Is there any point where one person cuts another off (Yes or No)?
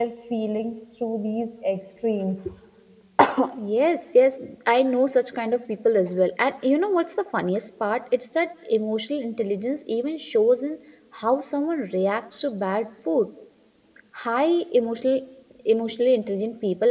No